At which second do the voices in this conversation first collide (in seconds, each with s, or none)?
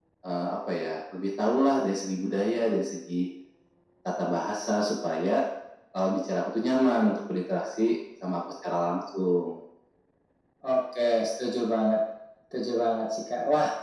none